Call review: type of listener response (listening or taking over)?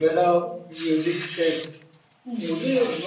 listening